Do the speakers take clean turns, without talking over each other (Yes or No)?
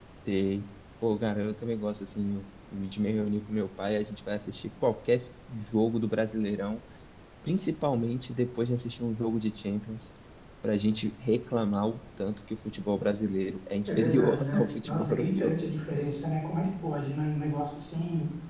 No